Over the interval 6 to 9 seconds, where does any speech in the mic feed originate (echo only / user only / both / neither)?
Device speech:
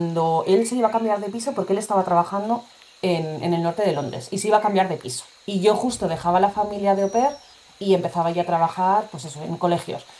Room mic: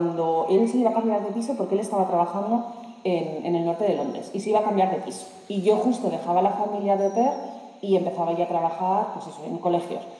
echo only